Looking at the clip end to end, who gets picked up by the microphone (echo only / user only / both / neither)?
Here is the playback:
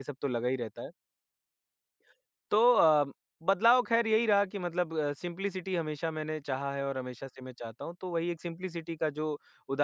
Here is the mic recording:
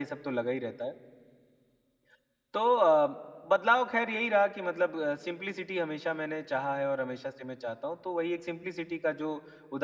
echo only